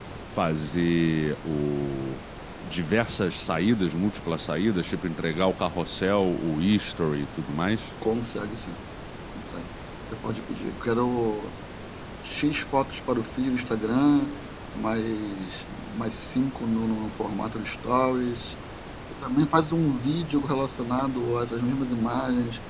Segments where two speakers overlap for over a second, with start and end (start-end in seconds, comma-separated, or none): none